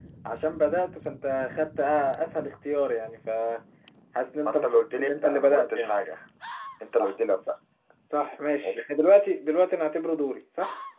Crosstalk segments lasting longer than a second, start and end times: 4.5-6.0

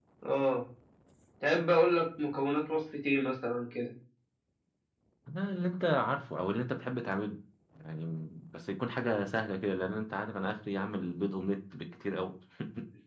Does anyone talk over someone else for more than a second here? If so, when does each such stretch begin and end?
none

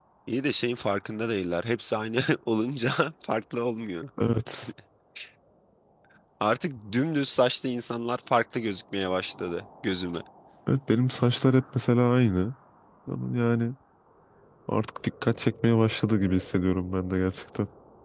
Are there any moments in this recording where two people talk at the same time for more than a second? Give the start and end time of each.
none

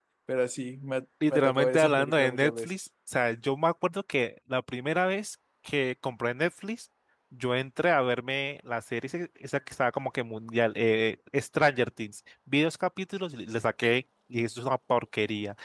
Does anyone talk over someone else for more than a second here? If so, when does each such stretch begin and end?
1.3-2.7

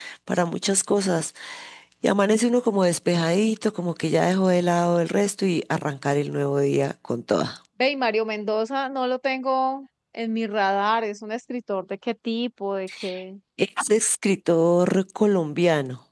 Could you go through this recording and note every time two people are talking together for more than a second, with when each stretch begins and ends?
none

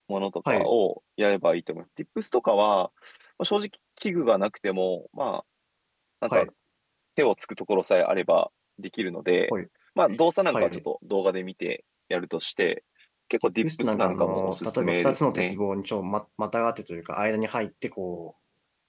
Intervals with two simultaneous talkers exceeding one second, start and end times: 13.4-15.6

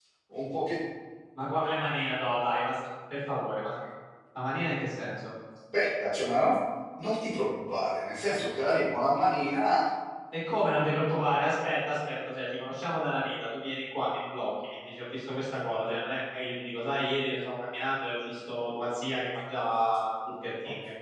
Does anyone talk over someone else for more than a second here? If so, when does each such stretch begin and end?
none

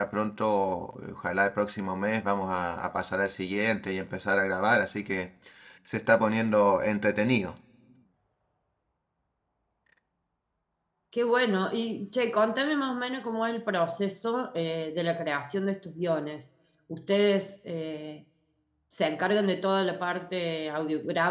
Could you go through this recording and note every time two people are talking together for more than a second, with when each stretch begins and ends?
none

